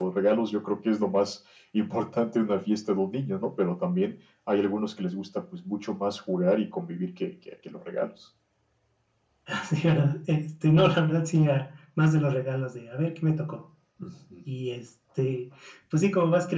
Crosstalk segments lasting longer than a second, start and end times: none

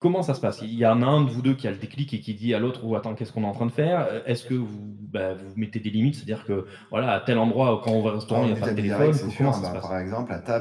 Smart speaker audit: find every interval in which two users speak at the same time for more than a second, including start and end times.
8.3-9.8

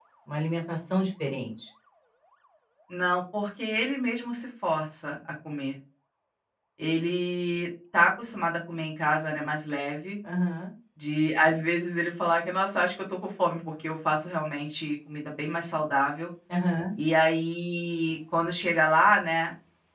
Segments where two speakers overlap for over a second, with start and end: none

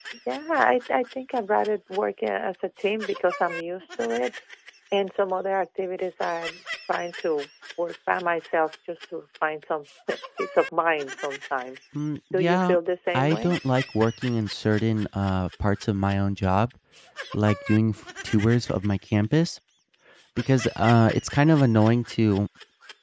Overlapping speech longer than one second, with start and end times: none

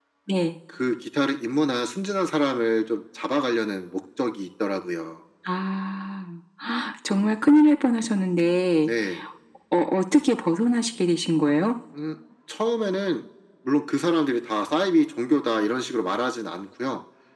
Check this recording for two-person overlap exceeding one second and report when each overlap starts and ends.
none

